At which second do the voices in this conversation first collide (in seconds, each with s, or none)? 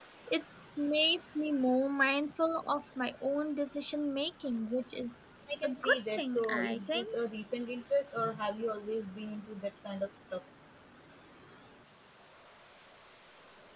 5.5 s